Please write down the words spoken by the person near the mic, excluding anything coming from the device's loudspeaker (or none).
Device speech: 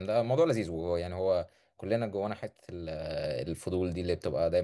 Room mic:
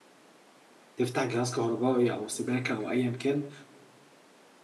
تفتح جهاز كهربائي او سباكه او ايا كان